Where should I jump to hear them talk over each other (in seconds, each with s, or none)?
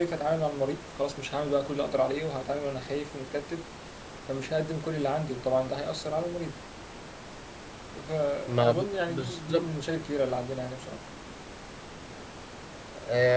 8.5 s